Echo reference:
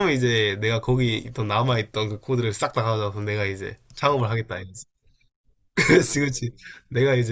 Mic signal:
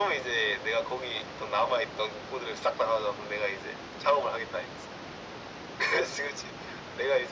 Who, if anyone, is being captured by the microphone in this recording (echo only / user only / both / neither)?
echo only